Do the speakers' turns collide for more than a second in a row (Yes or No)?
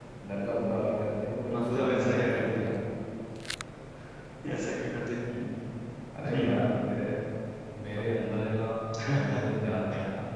Yes